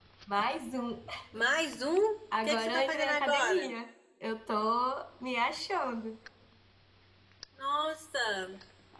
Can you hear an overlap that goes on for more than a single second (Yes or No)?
Yes